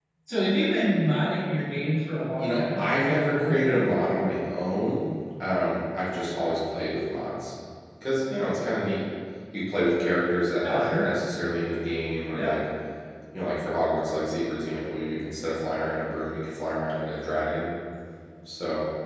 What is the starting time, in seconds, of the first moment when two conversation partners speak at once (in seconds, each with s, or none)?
2.4 s